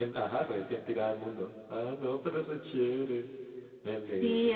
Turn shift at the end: Yes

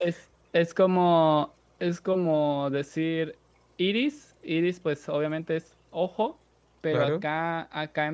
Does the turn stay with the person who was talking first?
Yes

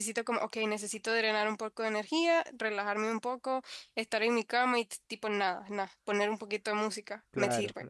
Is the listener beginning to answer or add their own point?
Yes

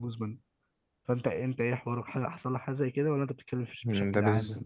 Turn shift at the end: Yes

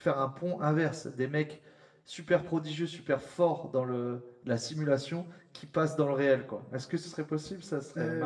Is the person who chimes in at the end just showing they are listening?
No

